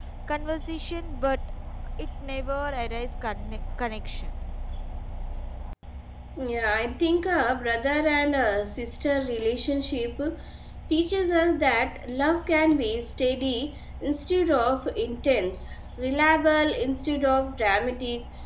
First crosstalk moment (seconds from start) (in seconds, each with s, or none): none